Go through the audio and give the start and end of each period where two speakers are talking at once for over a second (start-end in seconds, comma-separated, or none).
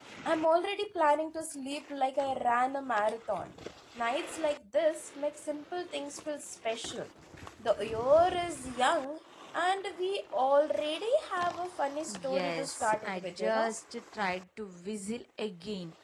12.1-13.7